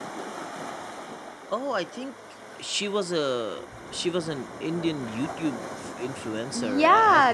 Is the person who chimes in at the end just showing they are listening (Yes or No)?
No